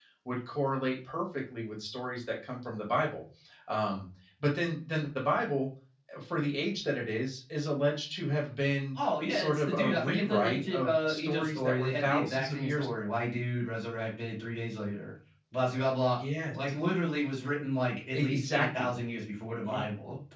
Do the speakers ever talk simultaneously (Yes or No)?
Yes